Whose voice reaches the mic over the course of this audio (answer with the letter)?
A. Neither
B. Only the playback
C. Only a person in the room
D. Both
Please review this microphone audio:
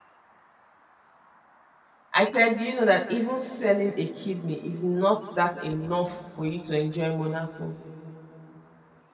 C